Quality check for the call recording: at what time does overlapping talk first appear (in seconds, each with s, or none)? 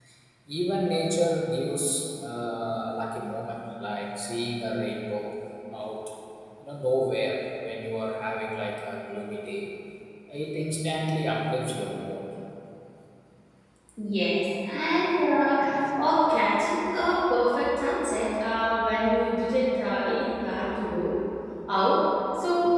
none